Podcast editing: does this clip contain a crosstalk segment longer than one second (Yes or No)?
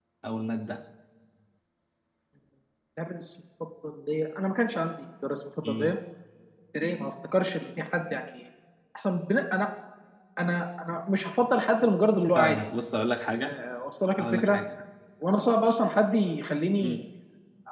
No